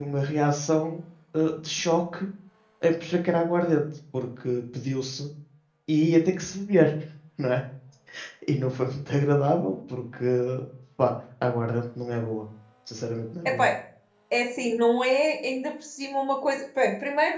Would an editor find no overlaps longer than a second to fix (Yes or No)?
Yes